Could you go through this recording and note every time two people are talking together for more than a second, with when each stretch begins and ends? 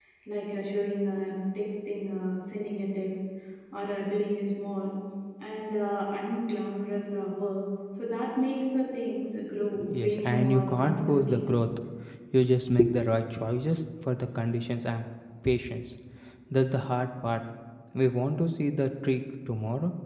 10.0-11.5

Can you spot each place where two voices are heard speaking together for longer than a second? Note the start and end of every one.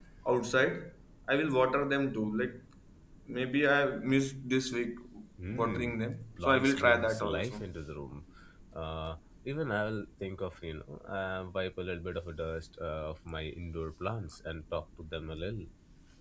6.4-7.6

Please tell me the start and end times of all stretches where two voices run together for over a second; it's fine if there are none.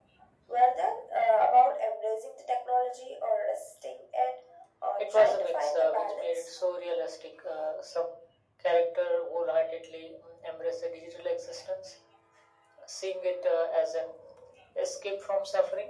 5.0-6.5

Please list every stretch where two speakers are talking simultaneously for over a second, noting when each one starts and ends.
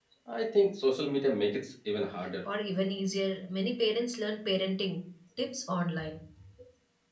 none

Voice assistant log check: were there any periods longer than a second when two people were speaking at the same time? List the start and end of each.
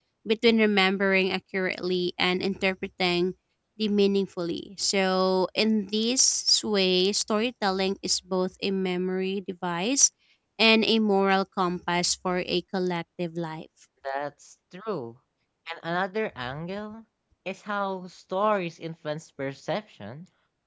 none

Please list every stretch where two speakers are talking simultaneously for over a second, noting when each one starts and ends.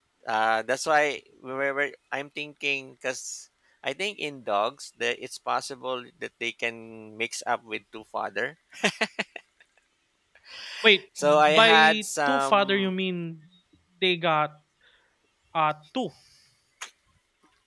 11.2-12.9

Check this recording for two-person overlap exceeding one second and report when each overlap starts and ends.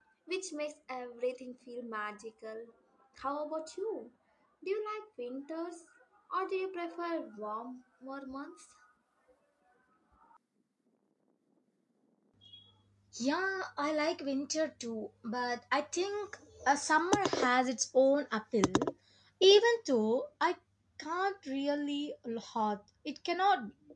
none

